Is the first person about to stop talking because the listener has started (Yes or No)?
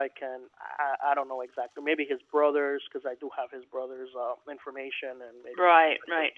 Yes